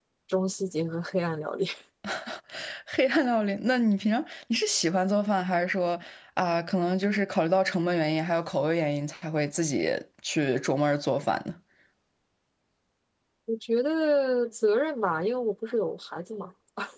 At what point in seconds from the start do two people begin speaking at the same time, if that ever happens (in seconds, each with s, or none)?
none